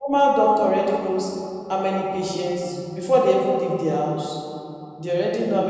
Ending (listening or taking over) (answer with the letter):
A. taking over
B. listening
B